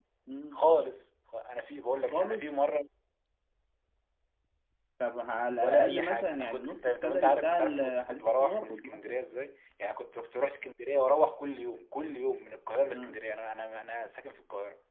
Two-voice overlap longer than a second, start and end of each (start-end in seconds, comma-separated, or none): 5.6-9.2